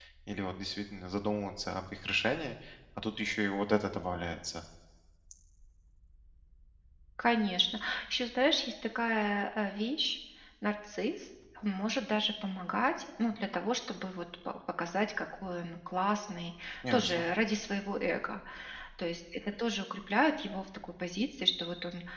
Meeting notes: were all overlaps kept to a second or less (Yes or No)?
Yes